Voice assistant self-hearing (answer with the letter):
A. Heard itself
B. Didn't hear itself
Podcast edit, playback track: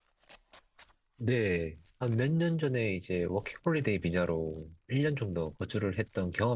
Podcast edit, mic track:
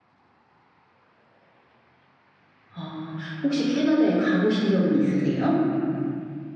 B